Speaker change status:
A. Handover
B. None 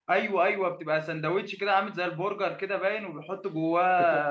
A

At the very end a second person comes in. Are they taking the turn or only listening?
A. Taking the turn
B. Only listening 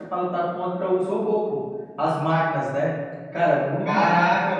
A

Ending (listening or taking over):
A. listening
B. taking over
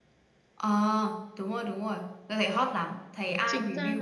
B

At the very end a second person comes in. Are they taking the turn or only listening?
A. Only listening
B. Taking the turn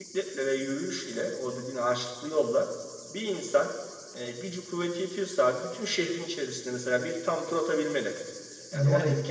A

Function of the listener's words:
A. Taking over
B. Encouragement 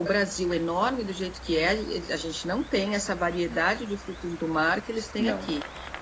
B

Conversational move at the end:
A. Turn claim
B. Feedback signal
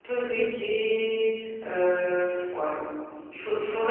B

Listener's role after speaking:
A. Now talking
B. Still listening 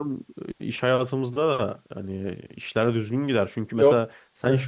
B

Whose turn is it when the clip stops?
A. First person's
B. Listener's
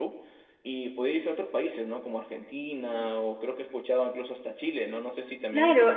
B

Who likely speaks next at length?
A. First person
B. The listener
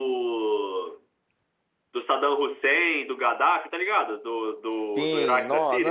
B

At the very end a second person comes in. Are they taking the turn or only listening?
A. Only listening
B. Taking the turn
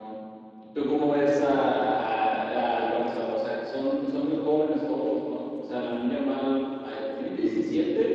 A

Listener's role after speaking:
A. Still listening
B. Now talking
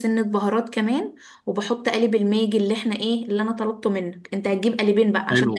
A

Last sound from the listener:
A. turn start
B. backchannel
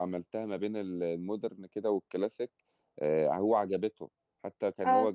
B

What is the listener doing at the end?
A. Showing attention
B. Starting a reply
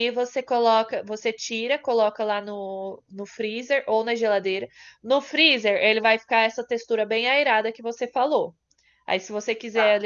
A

